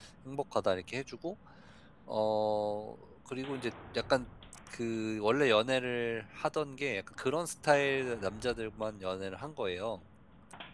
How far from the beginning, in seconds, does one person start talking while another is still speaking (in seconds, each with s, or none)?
none